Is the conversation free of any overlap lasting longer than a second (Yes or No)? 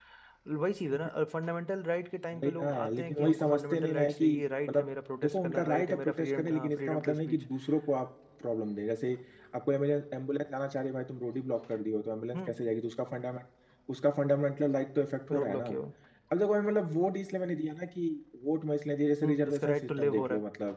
No